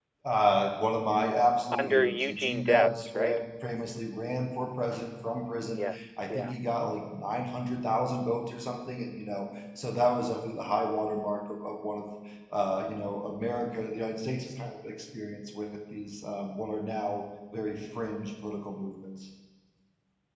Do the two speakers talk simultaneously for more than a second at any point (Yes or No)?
Yes